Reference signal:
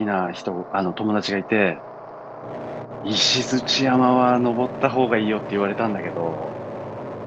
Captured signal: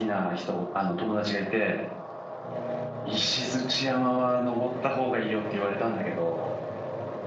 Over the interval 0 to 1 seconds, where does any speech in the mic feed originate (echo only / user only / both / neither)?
echo only